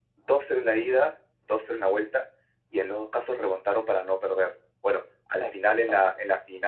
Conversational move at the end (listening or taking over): listening